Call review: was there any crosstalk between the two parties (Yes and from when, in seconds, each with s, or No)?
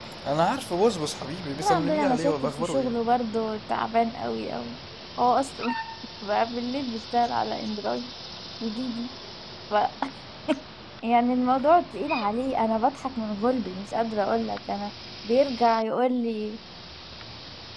Yes, from 1.6 s